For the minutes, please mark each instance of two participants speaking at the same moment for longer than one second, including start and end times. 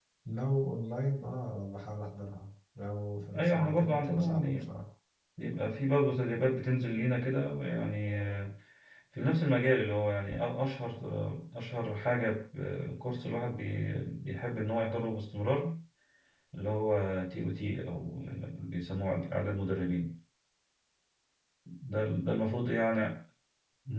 3.3-4.7

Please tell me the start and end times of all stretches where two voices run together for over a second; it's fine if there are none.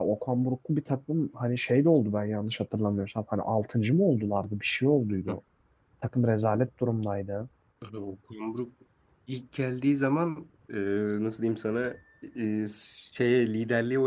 none

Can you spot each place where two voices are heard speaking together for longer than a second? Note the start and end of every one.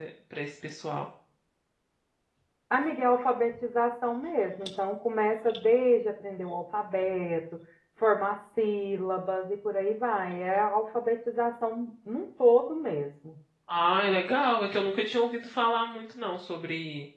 none

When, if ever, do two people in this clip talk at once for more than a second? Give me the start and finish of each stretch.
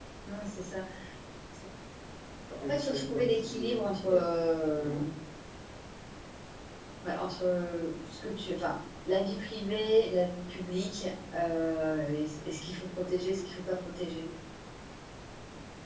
2.6-4.2

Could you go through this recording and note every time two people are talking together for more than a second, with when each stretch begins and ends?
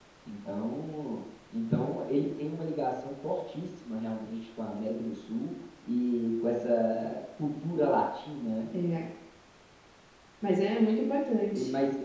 none

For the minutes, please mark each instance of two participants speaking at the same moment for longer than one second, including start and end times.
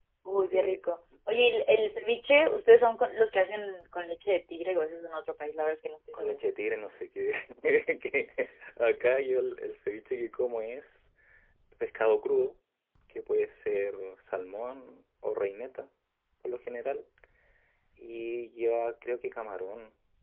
none

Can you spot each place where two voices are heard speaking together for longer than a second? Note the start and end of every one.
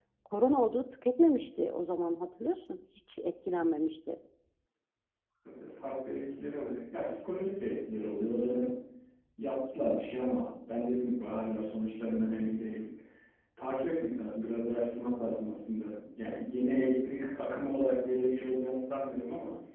none

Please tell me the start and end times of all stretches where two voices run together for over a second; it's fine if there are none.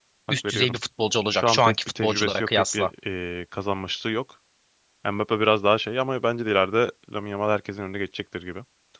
1.3-2.9

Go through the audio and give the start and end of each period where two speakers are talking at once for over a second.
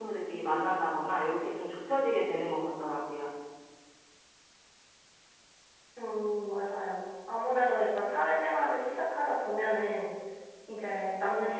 none

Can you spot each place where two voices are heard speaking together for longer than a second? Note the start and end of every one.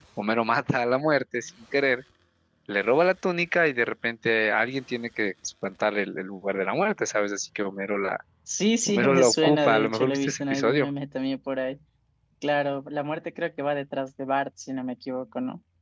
8.9-10.9

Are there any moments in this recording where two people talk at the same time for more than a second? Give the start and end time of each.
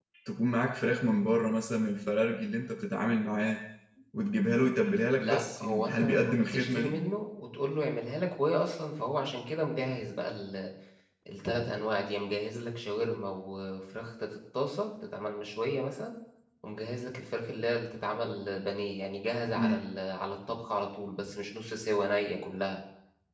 5.2-7.0

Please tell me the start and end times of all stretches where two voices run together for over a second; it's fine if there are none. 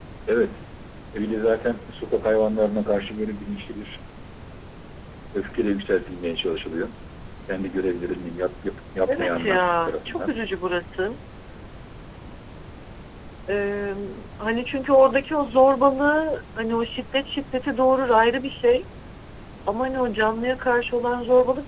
9.1-10.4

